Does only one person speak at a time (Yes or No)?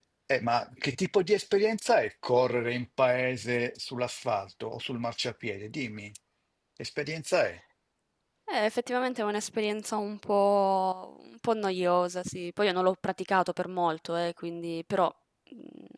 Yes